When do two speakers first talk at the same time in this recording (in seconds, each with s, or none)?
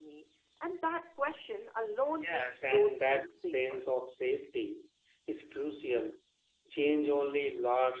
2.2 s